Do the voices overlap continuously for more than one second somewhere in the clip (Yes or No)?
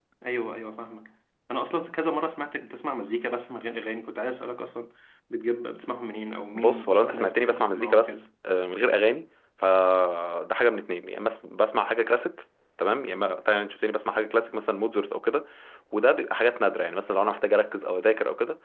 Yes